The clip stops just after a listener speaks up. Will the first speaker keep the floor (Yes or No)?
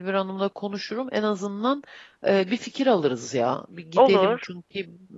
Yes